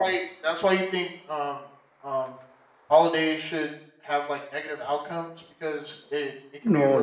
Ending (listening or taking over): taking over